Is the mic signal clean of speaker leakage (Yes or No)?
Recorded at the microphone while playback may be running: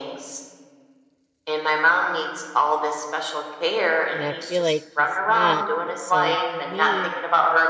No